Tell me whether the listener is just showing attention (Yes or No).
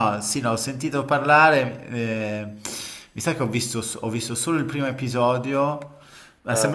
Yes